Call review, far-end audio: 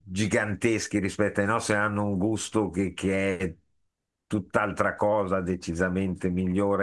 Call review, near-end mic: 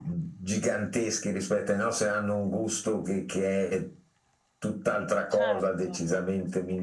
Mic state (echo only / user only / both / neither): both